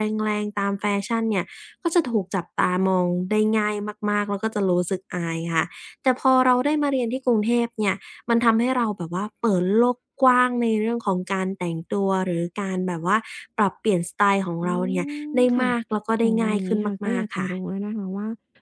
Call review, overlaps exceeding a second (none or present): present